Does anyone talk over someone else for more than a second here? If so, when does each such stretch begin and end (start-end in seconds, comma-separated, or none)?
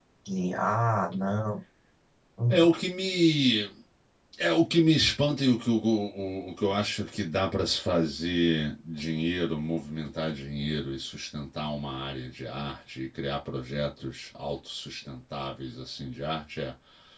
none